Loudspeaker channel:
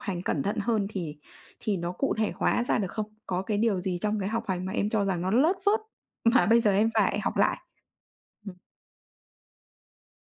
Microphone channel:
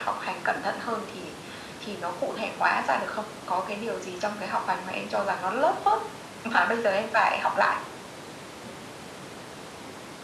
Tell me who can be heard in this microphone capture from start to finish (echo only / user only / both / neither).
echo only